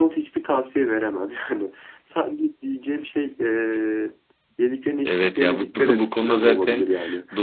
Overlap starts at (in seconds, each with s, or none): 5.0 s